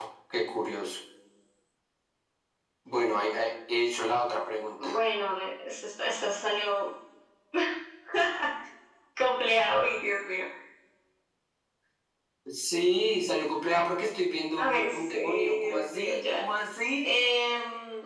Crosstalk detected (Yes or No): Yes